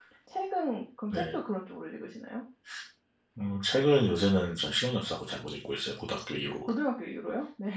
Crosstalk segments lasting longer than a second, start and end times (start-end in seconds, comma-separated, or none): none